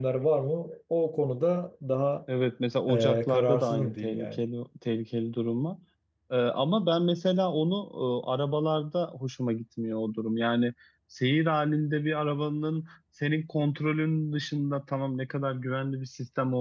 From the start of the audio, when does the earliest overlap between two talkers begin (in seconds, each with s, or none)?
2.9 s